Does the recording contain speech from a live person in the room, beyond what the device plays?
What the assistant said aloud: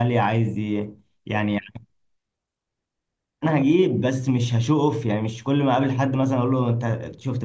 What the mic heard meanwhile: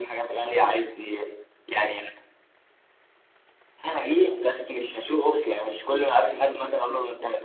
No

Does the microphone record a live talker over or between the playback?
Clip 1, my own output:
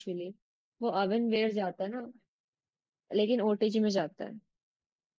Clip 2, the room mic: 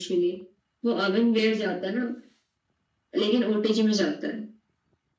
No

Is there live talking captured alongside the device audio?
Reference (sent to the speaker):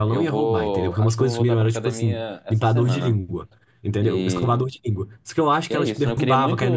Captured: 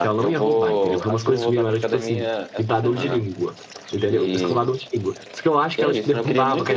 No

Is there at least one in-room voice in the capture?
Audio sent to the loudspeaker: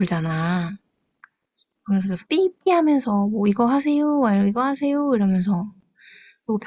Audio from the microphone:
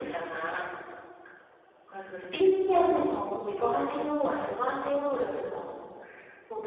No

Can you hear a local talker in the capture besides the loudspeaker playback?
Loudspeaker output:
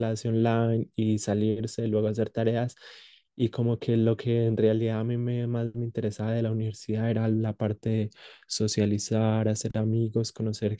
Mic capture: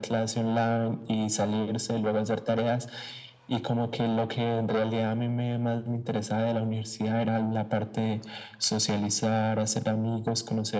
No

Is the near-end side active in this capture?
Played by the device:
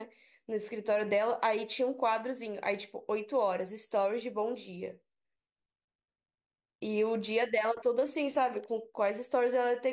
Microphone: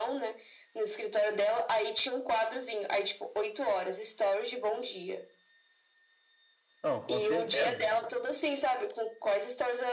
Yes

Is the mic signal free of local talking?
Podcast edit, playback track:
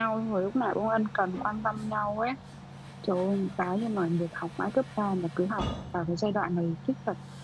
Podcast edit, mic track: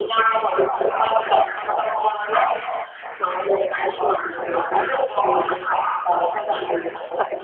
Yes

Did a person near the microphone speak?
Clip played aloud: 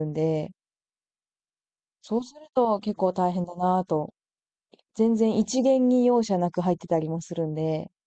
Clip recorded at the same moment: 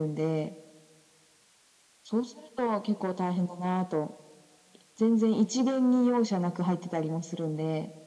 No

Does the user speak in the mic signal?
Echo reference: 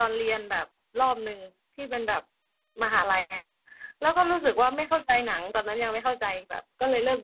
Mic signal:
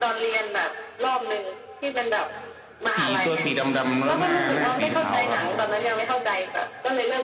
Yes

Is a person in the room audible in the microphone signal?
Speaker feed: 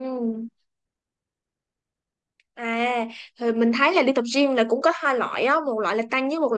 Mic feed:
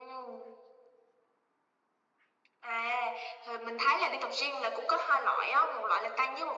No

